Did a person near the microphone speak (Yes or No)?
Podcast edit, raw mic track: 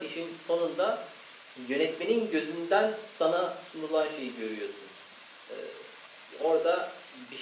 No